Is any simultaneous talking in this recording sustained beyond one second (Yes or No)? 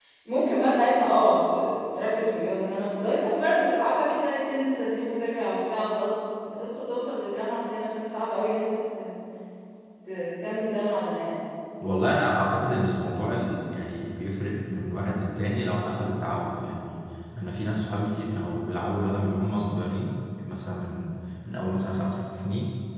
No